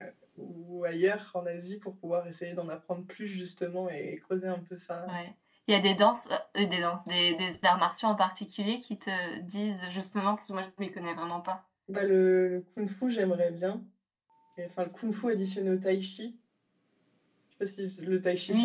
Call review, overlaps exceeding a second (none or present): none